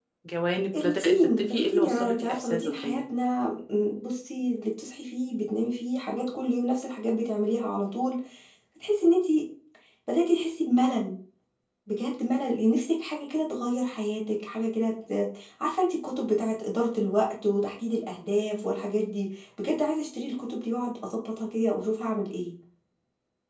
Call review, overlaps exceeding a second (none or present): present